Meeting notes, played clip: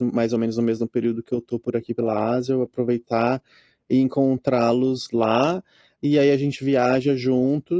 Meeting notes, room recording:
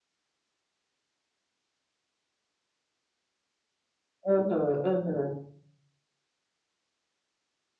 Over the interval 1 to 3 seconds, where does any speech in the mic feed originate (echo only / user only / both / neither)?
neither